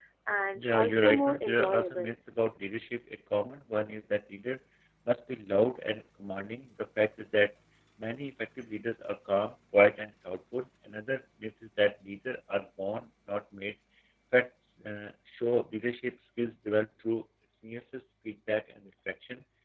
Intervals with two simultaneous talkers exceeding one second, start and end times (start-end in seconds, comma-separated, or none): 0.6-2.1